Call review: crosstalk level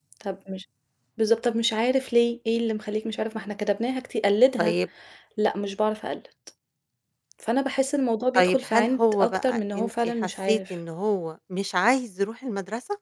present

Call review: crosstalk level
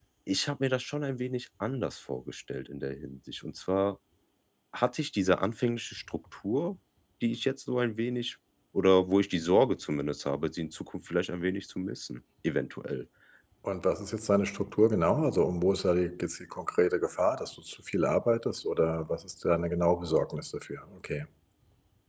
none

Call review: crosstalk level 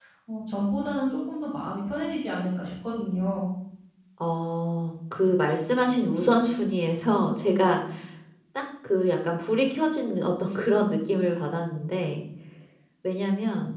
none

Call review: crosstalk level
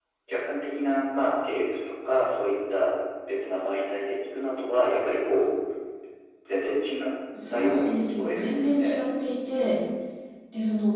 present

